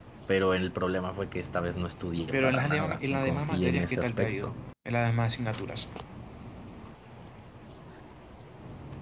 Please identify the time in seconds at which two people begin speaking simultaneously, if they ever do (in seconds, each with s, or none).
2.3 s